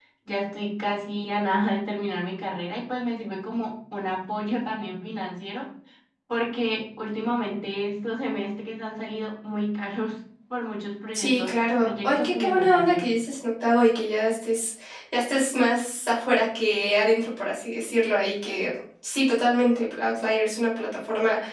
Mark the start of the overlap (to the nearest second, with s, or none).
11 s